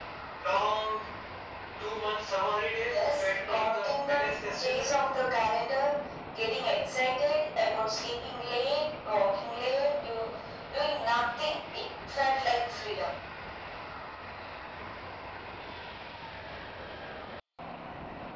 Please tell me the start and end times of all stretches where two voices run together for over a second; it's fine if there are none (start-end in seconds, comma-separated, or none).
2.8-4.9